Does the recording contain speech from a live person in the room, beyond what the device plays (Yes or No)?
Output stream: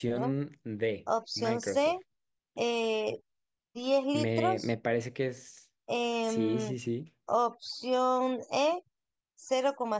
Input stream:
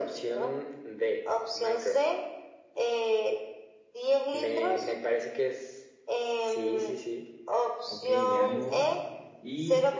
Yes